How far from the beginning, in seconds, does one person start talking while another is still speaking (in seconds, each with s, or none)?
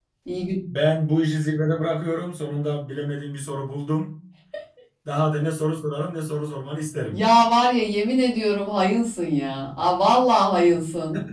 none